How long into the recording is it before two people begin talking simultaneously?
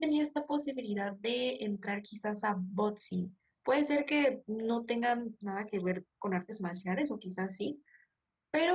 none

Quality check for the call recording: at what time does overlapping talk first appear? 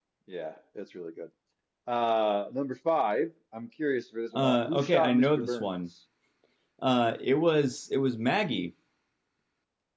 4.3 s

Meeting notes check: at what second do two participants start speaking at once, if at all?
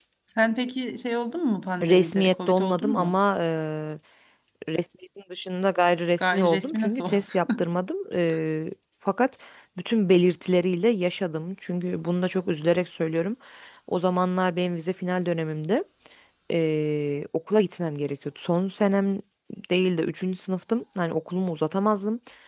1.8 s

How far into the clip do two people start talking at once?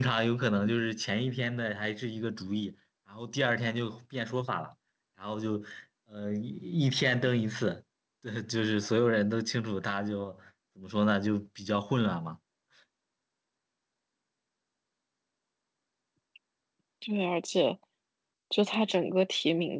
none

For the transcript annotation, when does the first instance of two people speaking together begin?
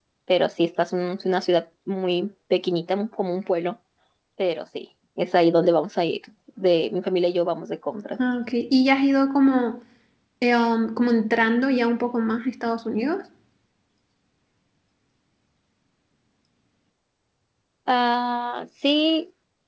none

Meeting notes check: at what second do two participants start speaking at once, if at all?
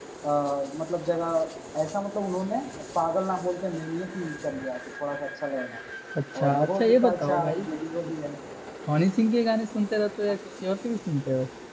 6.4 s

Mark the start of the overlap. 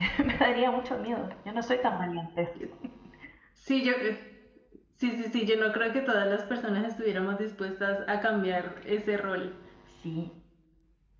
none

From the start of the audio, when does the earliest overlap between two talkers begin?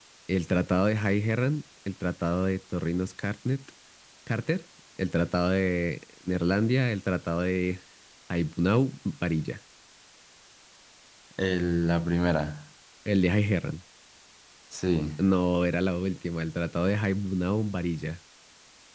none

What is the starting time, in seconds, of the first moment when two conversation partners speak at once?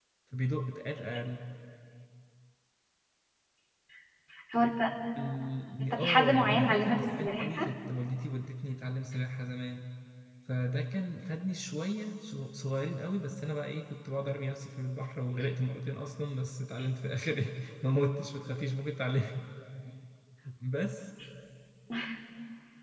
5.8 s

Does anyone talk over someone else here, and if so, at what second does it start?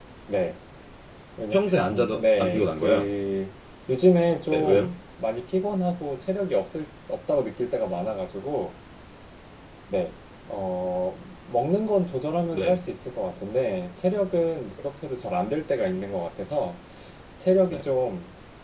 1.5 s

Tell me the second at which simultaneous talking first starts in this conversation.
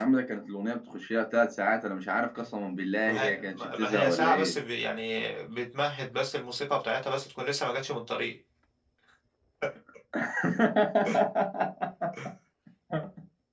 3.0 s

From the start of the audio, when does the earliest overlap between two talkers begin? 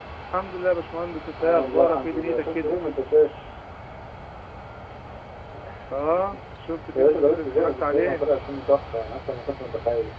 1.4 s

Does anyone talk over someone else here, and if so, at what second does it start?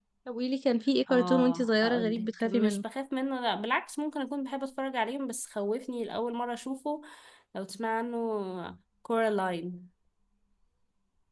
1.1 s

